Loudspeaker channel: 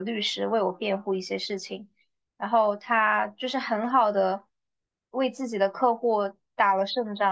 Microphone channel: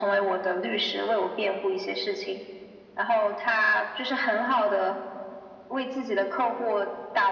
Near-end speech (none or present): none